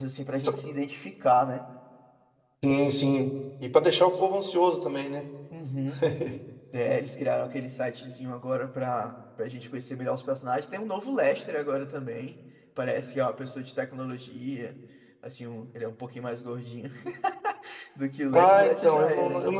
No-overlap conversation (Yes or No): No